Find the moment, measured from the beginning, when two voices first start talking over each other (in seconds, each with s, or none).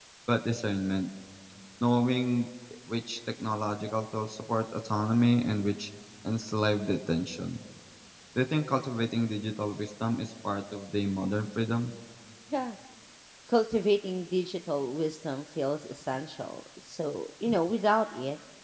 none